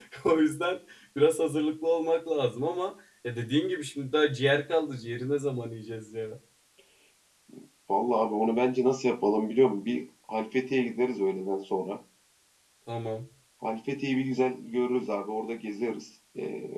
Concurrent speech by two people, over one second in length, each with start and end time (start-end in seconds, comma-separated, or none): none